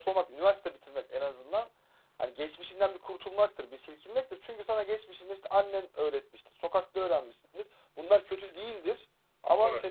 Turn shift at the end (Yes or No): No